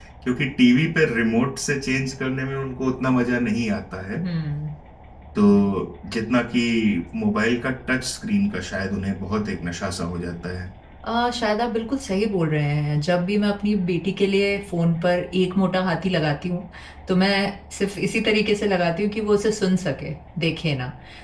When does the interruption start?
none

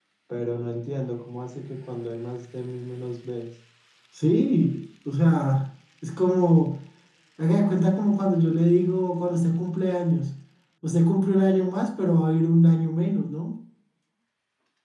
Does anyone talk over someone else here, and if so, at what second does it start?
none

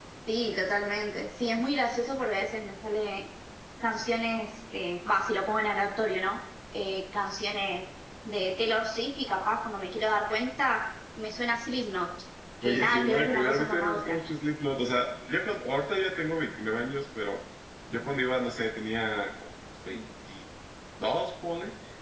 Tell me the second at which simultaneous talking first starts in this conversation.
12.6 s

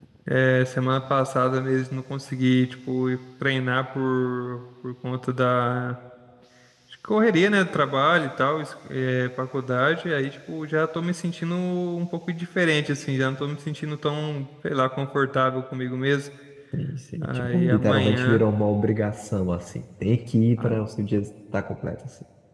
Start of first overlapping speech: 17.2 s

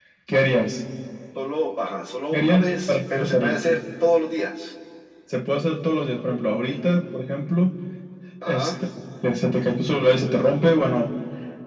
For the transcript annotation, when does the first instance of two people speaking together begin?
2.3 s

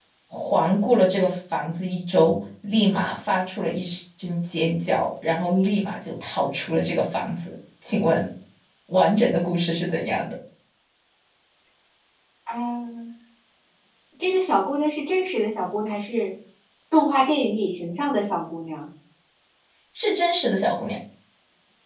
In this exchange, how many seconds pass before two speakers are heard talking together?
none

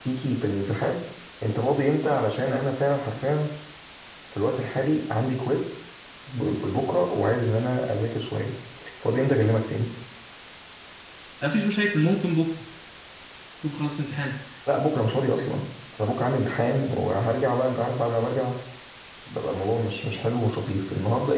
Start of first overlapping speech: none

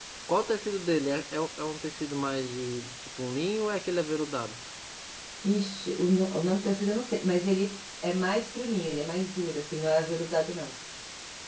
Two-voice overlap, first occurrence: none

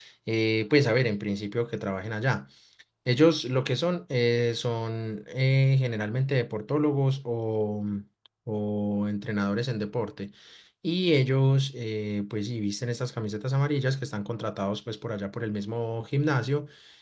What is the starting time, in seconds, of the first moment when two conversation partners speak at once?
none

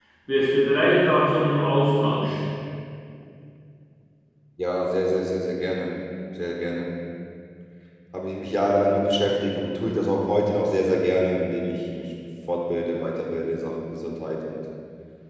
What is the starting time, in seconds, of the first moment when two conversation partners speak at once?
none

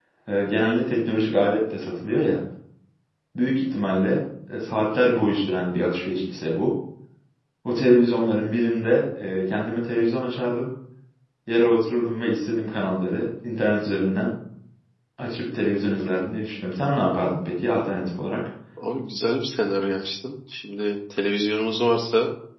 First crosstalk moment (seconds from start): none

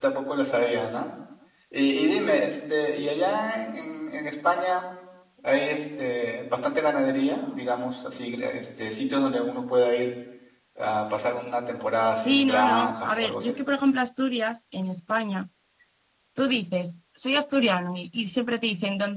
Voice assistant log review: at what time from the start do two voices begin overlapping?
12.2 s

